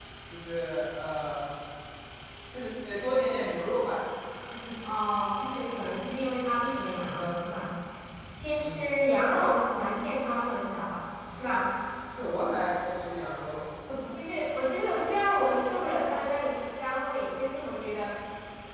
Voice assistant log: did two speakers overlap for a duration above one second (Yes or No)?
No